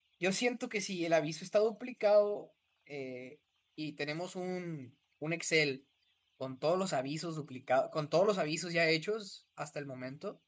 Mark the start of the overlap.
none

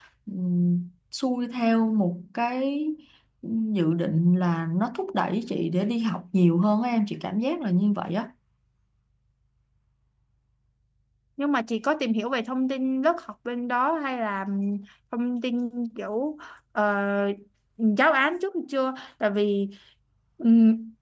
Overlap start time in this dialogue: none

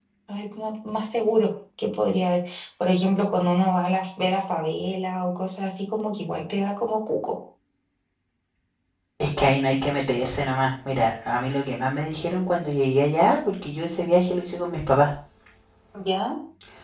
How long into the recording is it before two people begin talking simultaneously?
none

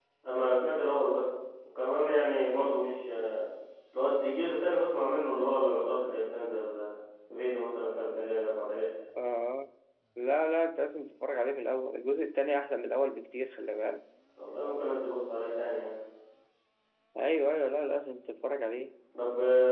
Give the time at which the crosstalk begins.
none

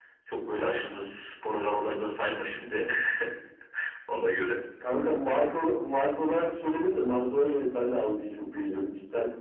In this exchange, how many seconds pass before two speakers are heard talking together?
none

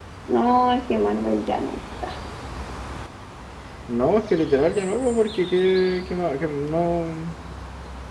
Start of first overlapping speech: none

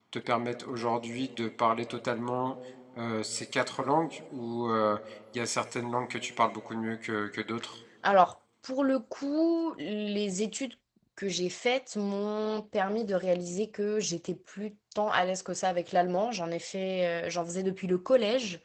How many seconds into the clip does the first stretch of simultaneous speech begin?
none

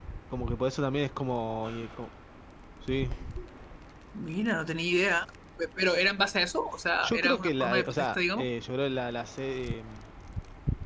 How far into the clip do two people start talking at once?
7.0 s

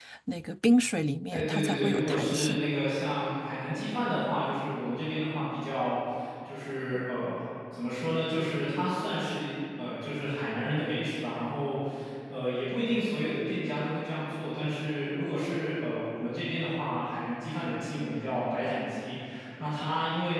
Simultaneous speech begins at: 1.3 s

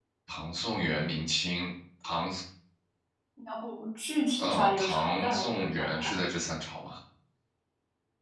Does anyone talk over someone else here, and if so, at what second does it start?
4.4 s

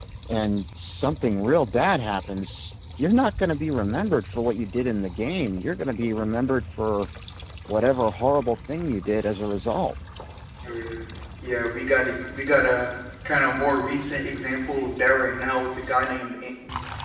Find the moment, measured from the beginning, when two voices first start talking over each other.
none

